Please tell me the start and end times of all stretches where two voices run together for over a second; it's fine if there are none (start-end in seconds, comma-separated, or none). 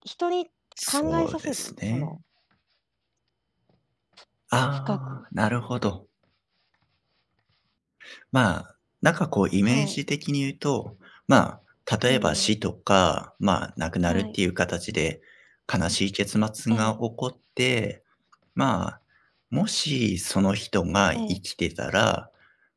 0.9-2.2